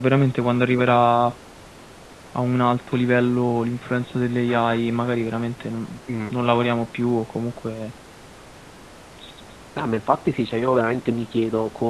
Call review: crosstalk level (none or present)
none